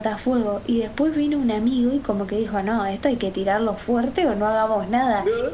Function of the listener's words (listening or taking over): listening